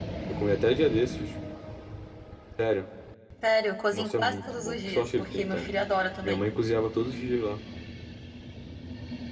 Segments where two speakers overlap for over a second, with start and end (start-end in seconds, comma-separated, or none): 3.9-5.7